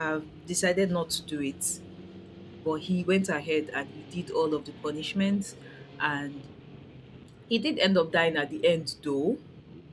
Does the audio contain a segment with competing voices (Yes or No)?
No